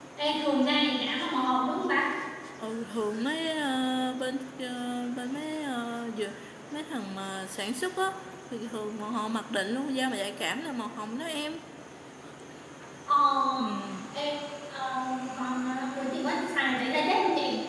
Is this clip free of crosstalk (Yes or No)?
Yes